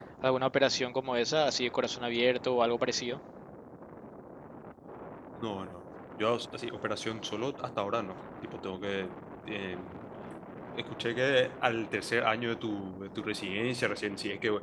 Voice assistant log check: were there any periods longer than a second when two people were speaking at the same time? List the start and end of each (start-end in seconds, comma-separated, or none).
none